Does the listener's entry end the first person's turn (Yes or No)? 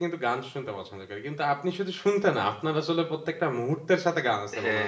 Yes